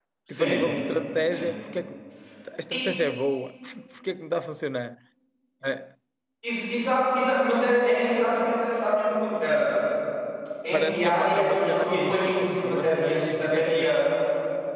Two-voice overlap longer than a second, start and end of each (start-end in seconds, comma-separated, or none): 10.7-13.9